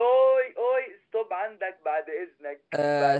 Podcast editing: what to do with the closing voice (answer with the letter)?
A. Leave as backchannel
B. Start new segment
B